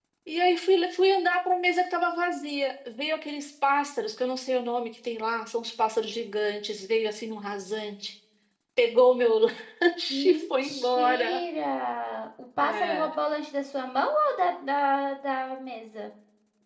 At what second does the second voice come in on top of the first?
10.1 s

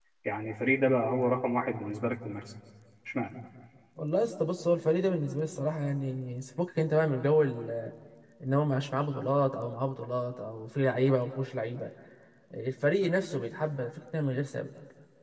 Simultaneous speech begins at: none

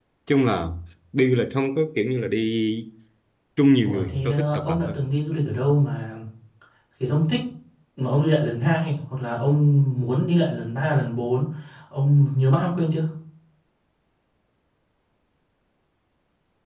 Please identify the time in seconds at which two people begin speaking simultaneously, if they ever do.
3.8 s

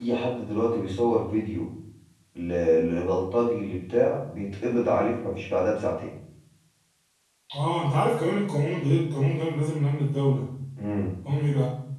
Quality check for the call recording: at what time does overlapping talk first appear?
none

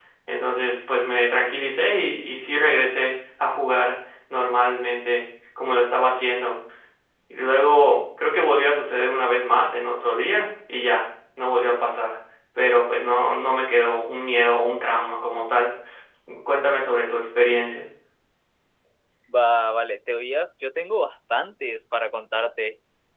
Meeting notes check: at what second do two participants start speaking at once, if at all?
none

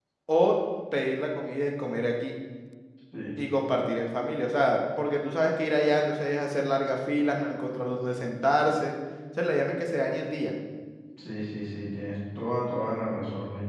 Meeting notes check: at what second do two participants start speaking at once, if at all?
none

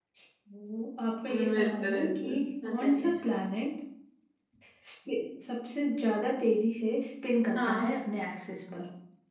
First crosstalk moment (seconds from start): 1.3 s

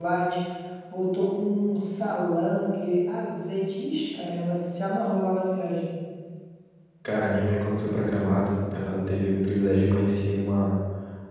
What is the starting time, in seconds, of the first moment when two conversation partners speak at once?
none

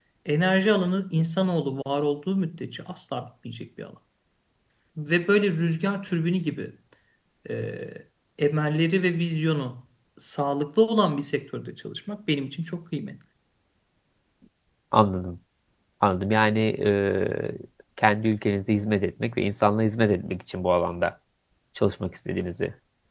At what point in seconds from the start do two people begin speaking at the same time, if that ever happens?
none

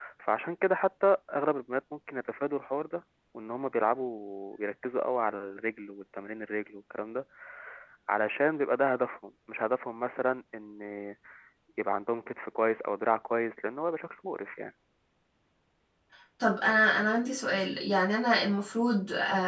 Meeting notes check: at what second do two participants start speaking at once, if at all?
none

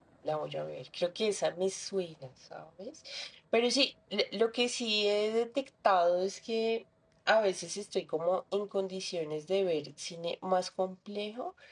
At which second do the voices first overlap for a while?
none

